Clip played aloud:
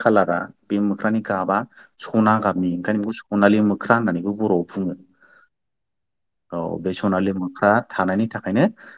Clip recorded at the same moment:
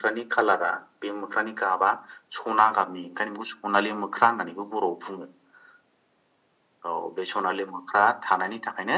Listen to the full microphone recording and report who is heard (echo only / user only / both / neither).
echo only